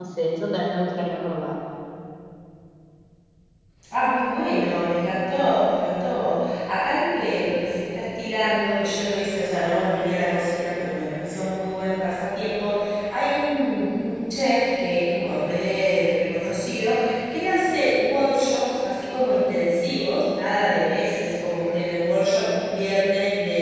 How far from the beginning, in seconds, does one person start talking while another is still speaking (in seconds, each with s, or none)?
none